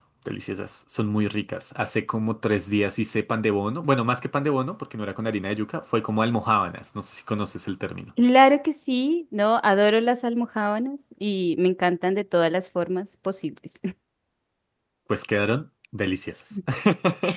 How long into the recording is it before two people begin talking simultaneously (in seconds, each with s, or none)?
none